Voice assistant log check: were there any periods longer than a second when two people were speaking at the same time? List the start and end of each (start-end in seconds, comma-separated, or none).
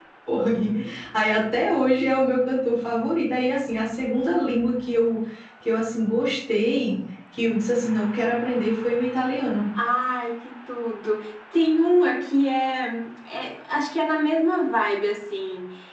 none